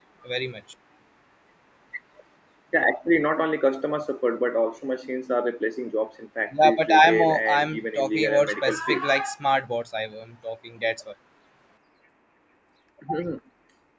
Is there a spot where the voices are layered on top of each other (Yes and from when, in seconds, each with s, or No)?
Yes, from 6.5 s